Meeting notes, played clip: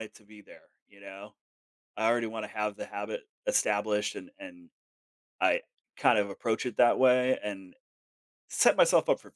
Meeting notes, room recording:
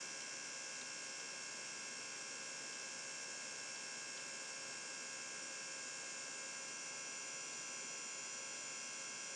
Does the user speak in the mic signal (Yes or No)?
No